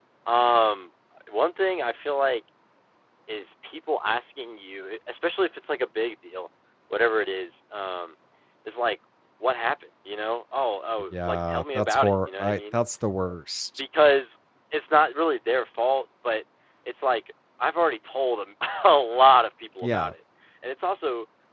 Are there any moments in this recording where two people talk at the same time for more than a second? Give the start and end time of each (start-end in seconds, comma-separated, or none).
11.1-12.8